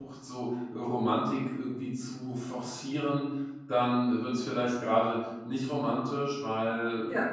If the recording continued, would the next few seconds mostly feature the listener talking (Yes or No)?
No